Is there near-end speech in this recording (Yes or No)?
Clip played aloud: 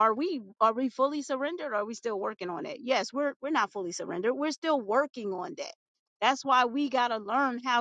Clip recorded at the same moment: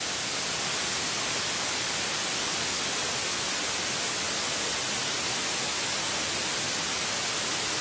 No